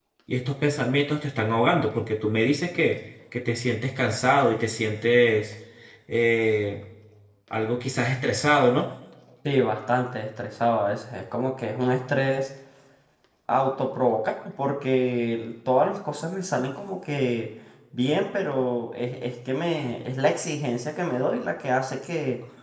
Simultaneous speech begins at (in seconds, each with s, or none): none